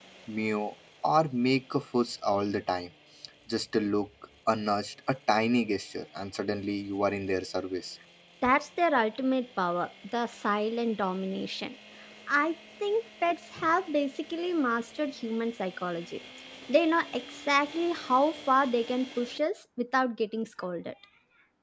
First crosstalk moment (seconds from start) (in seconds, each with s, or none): none